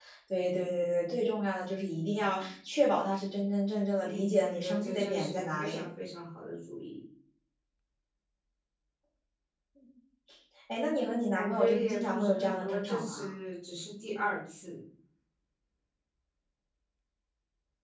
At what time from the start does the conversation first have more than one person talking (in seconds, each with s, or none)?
4.0 s